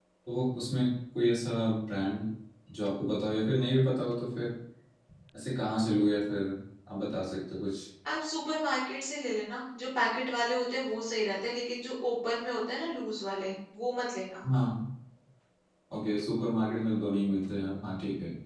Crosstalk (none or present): none